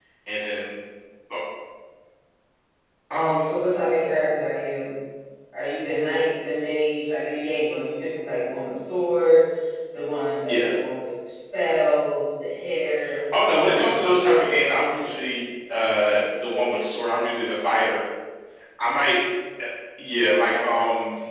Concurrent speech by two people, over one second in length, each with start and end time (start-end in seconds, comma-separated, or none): 13.7-15.2